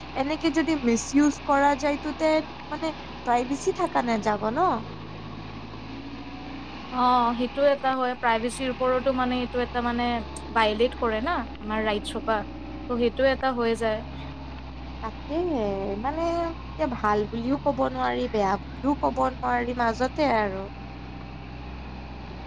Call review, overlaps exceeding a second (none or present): none